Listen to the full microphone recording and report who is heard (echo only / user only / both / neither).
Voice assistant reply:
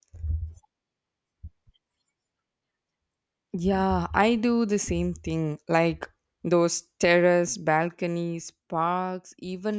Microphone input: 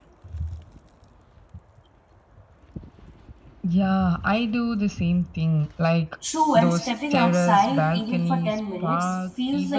both